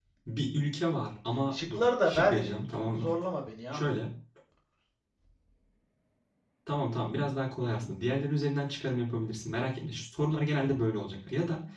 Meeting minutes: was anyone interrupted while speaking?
Yes, from 1.5 s

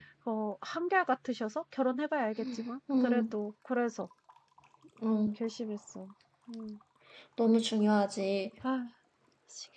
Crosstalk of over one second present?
No

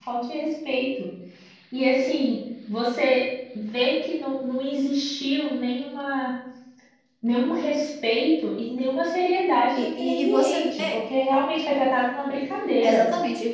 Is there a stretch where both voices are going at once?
Yes, from 9.8 s

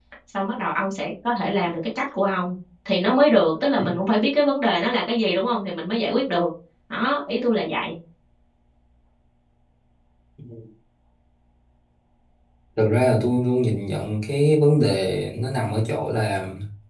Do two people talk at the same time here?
No

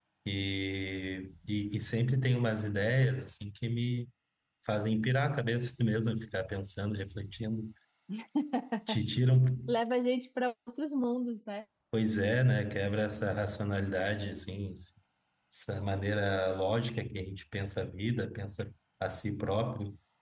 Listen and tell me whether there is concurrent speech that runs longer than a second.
No

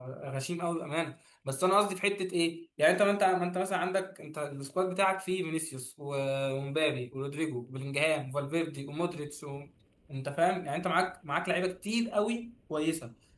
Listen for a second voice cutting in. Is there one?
No

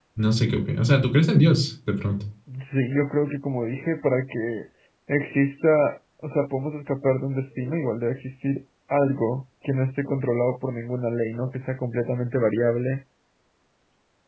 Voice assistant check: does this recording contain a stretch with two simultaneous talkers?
No

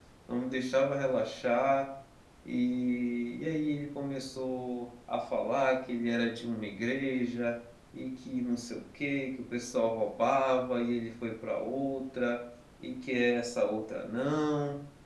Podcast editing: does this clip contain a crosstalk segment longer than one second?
No

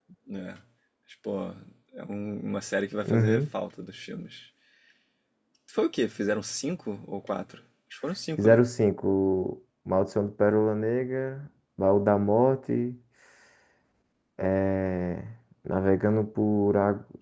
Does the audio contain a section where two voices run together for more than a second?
No

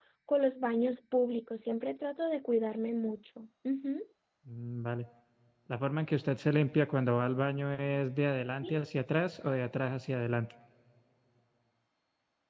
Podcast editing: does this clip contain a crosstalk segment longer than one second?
No

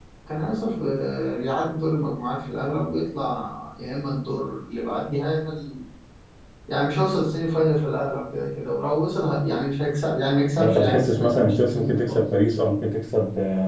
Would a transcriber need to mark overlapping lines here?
Yes, from 10.6 s

